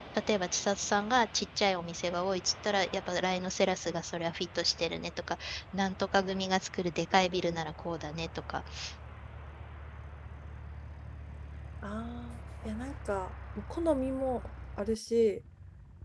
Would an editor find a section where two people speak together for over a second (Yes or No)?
No